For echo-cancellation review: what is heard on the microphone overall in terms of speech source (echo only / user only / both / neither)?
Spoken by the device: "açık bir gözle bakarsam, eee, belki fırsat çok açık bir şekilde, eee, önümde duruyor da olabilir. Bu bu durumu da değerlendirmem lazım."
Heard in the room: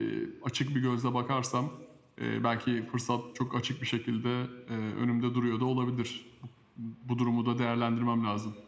echo only